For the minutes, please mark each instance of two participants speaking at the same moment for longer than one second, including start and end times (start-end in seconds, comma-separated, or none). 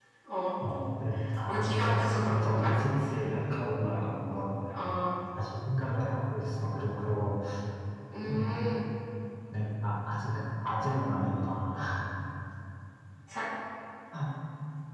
1.5-2.7